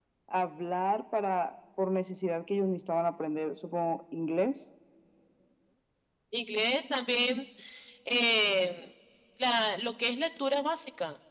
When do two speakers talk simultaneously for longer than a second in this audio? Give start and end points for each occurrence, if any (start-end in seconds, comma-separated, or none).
none